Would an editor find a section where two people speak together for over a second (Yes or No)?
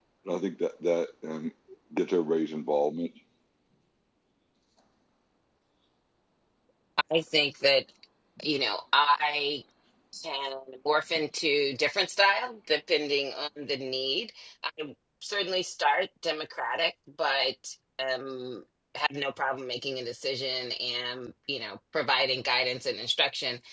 No